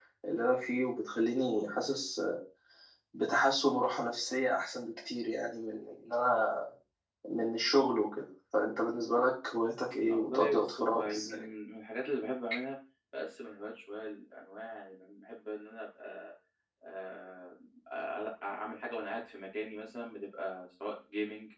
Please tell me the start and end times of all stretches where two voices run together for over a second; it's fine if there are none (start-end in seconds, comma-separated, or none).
10.1-11.5